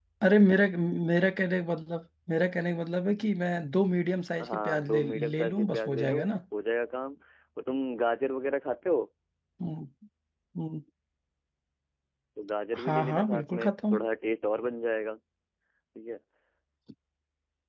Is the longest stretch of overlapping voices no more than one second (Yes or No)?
No